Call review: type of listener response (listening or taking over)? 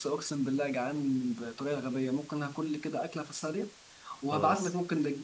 listening